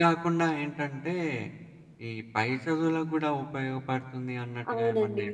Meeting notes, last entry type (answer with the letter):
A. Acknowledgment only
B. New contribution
B